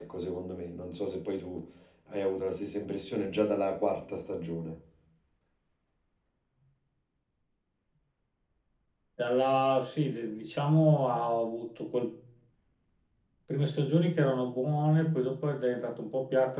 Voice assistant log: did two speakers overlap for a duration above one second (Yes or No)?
No